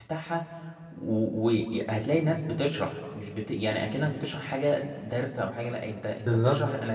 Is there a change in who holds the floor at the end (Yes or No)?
No